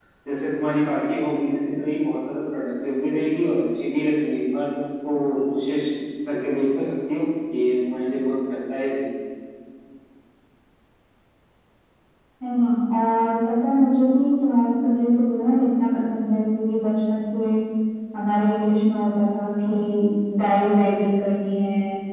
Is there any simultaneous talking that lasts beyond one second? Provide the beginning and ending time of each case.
none

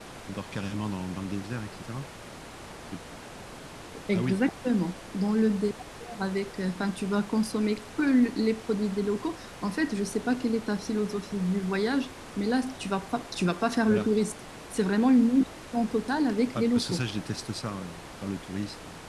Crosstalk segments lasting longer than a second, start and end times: none

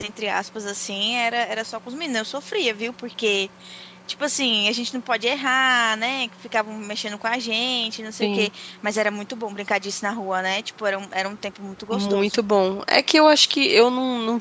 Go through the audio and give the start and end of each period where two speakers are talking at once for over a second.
none

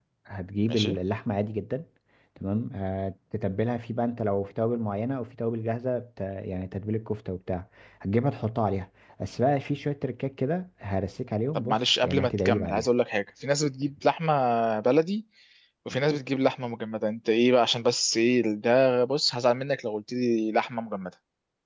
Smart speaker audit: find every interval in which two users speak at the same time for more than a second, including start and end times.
11.5-12.9

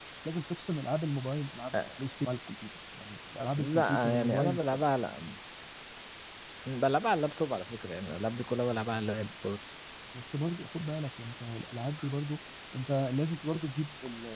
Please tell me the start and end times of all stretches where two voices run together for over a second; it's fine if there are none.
3.6-4.8

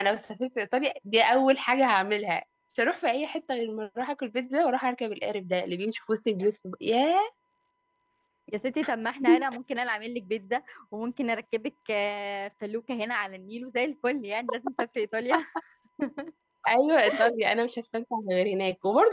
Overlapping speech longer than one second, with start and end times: none

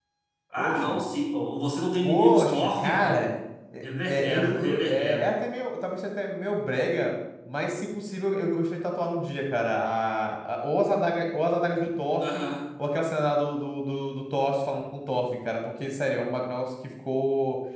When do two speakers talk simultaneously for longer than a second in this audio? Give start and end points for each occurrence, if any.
2.0-3.3, 4.1-5.3

